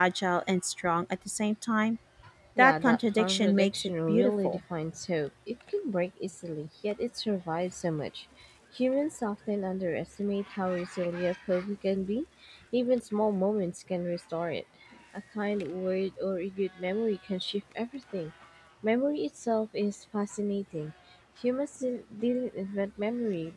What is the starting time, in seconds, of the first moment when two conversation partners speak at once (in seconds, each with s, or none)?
2.6 s